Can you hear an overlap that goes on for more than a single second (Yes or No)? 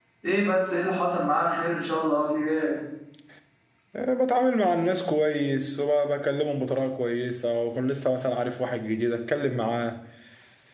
No